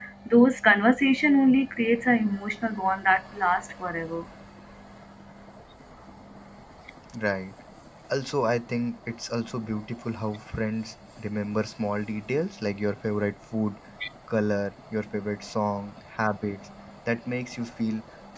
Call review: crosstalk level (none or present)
none